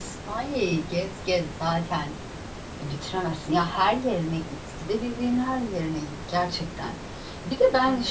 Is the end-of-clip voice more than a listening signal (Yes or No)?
No